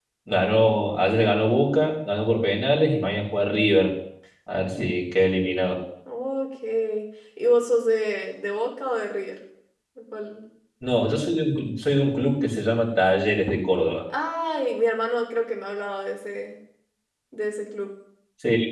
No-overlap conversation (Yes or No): Yes